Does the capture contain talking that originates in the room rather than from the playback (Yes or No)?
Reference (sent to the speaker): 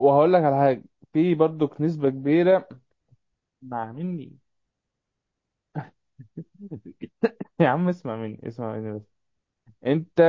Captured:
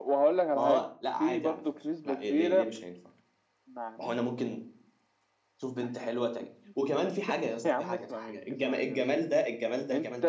Yes